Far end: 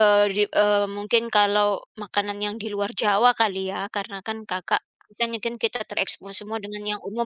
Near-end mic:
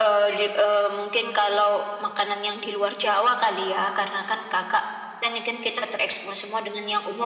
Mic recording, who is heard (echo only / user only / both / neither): echo only